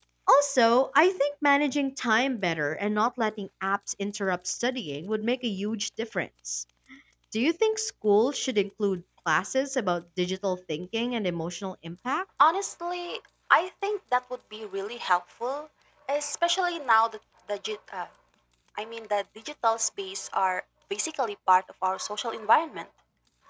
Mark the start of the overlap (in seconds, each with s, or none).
none